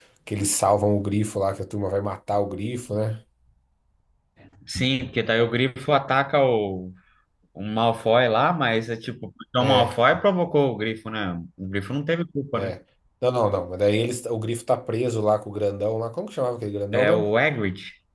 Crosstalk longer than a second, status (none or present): none